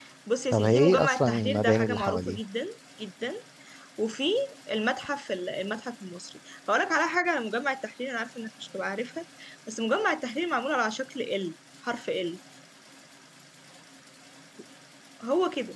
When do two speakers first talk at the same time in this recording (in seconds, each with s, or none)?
0.5 s